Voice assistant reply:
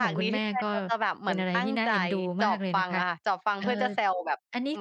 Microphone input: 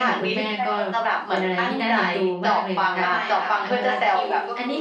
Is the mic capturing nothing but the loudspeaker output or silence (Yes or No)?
No